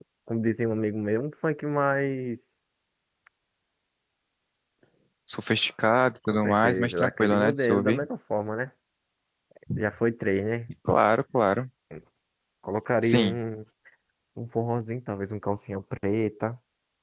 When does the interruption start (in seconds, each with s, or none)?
6.3 s